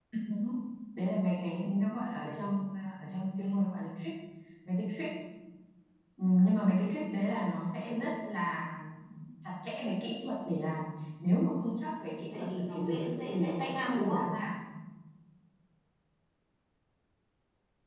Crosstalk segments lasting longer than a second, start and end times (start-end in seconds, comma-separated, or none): 12.4-14.2